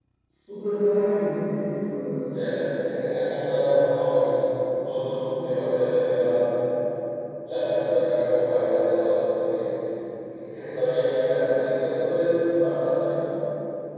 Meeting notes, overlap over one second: none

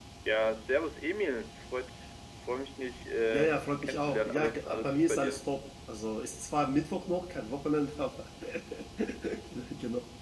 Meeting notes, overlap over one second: present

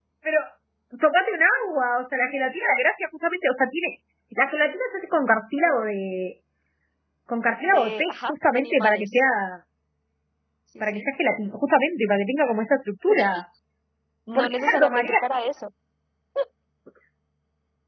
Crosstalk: present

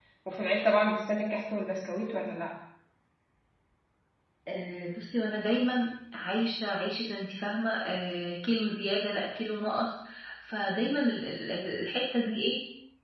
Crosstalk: none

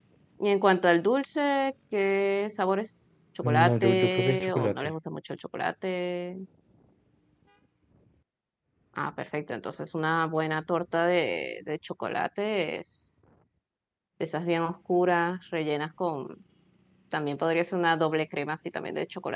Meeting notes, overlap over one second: present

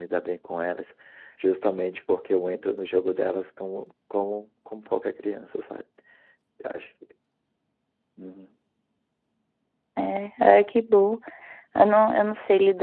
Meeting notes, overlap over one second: none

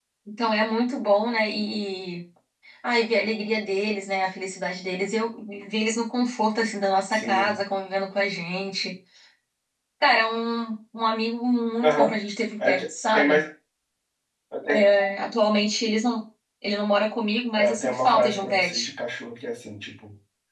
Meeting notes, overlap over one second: present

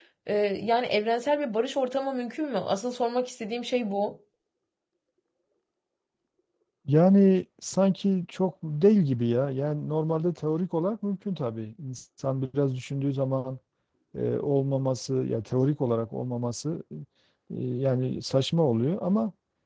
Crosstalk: none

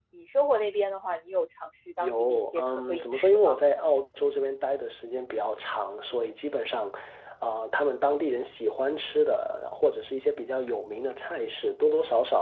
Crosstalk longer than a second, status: present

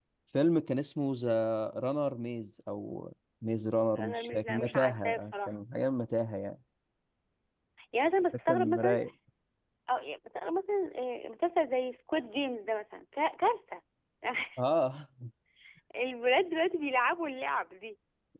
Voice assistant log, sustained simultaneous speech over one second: present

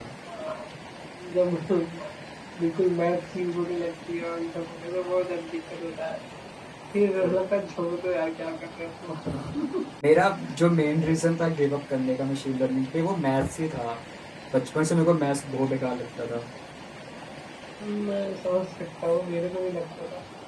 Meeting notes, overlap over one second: none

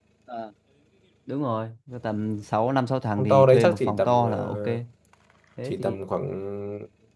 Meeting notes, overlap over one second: present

